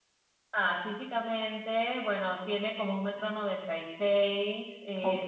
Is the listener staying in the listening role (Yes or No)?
Yes